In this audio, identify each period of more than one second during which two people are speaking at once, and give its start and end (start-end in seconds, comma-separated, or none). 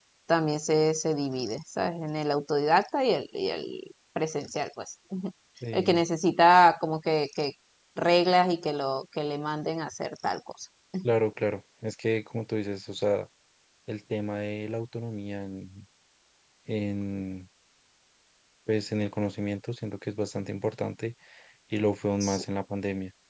none